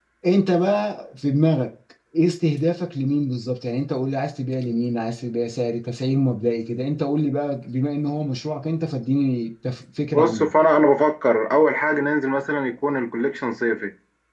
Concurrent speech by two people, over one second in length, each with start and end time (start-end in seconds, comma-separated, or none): none